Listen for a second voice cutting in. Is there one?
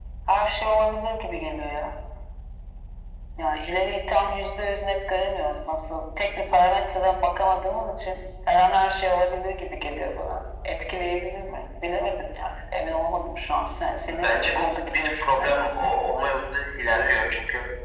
Yes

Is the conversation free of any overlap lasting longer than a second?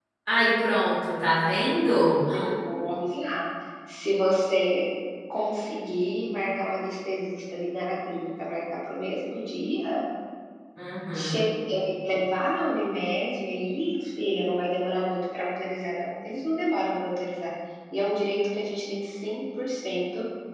Yes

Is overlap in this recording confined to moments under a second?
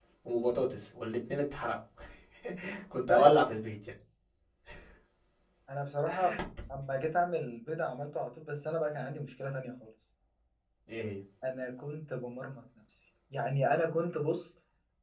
Yes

